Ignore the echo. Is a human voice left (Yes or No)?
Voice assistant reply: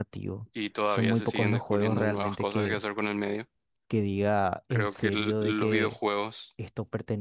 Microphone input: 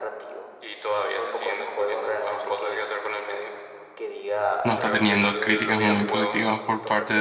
Yes